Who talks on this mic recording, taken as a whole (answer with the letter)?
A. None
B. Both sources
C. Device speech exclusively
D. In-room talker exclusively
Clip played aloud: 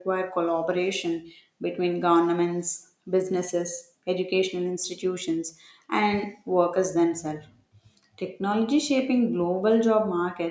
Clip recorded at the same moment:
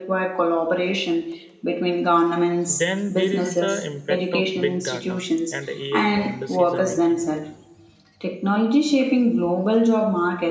B